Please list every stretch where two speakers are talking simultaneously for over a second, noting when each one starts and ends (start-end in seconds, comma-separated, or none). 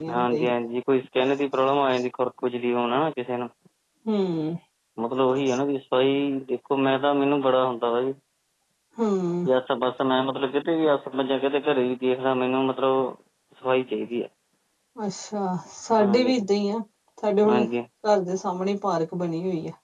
none